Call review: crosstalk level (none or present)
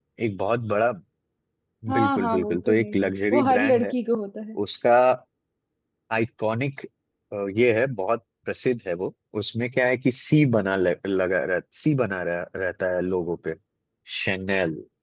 present